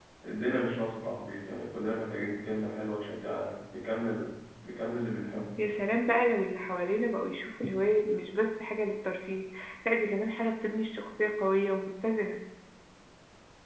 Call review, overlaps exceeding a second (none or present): none